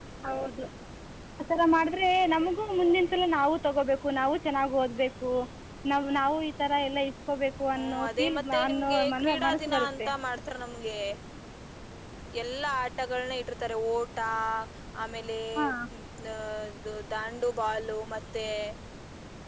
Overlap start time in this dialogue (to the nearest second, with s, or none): 8 s